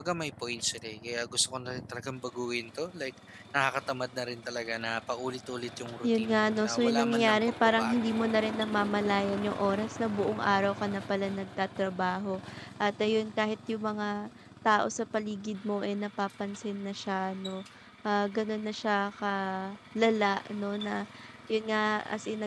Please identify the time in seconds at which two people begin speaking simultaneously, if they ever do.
6 s

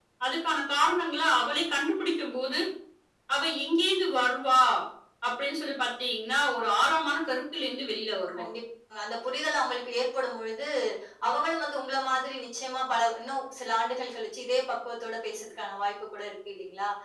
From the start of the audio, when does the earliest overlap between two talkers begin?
none

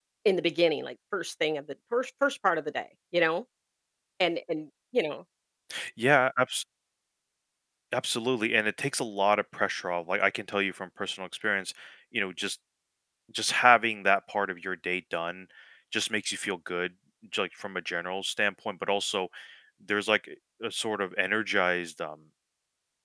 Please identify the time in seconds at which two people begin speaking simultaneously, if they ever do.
none

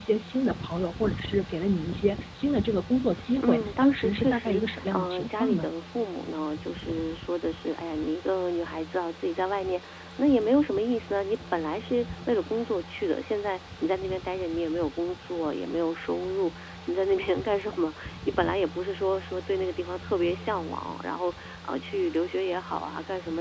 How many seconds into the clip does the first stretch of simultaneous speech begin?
3 s

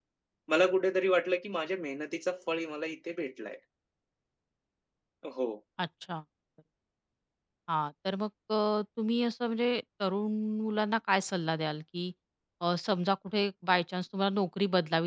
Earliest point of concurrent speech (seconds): none

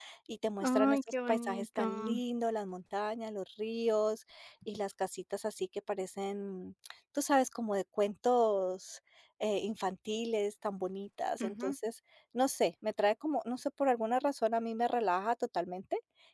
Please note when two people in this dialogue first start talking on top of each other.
1 s

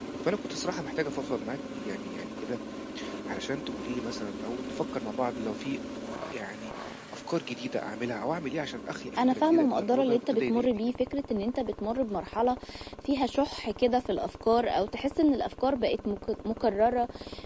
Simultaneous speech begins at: 9 s

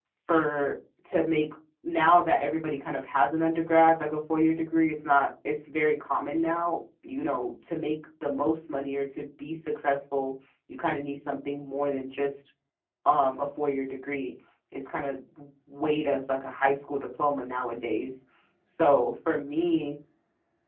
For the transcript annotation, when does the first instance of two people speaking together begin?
none

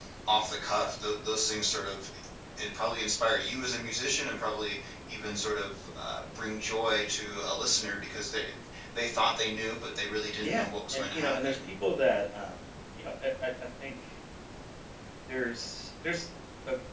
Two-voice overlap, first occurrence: 10 s

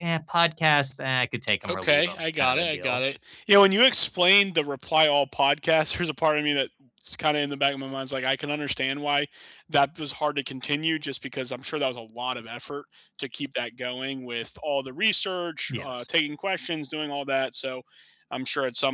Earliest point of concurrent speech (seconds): 2 s

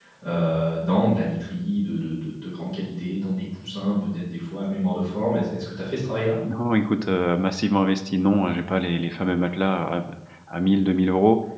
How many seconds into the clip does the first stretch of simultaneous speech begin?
none

